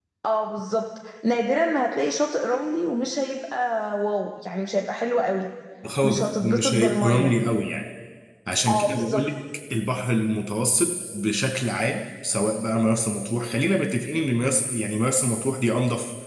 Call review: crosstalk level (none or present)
present